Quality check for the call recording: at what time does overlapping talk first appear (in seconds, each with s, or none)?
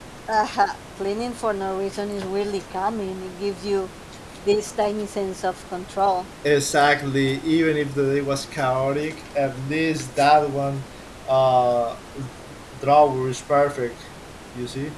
none